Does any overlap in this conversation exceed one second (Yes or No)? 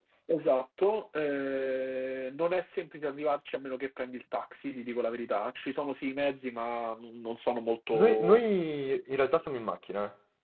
No